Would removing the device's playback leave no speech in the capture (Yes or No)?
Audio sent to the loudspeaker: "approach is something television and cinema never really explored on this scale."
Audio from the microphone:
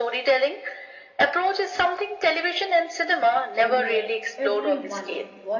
No